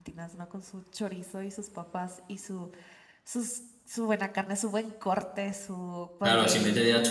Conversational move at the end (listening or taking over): taking over